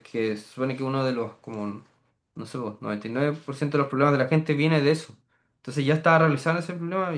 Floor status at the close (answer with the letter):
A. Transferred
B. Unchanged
B